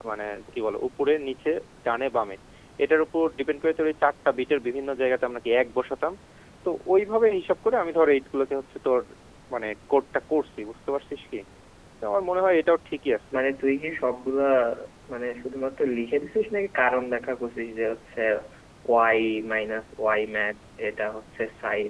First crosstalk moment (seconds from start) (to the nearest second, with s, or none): none